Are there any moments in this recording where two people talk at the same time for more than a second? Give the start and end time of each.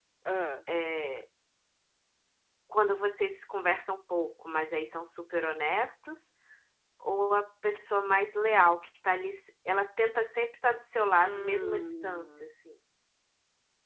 11.2-12.4

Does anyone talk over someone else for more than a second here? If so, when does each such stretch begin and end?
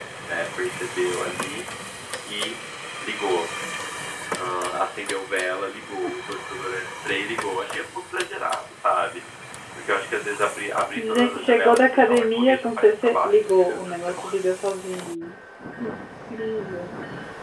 11.1-14.3

